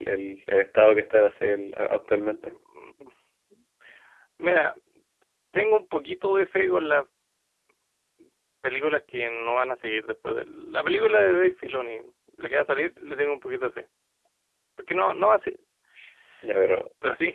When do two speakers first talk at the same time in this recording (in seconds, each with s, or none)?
none